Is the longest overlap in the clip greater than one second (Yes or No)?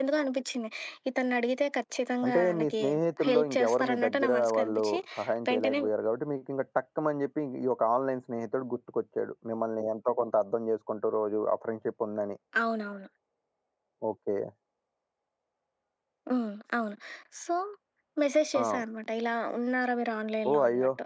Yes